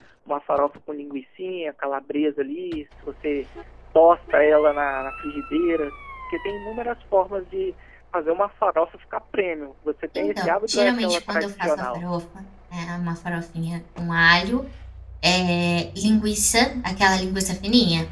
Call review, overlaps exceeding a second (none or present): present